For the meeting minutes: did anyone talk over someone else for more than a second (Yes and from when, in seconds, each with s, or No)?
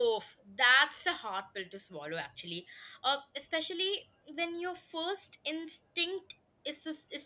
No